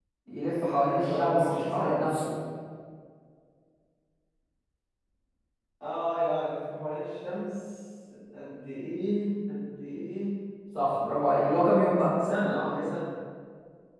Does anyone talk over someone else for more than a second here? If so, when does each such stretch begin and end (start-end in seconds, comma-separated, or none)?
0.6-2.0